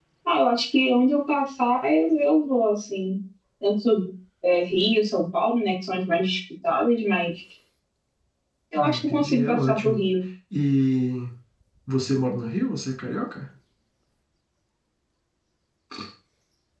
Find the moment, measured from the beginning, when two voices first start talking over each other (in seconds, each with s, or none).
8.8 s